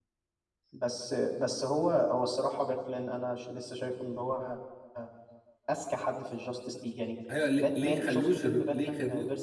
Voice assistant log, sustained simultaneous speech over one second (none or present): present